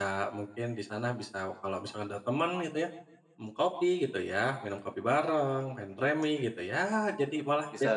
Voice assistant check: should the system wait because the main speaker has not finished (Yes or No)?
No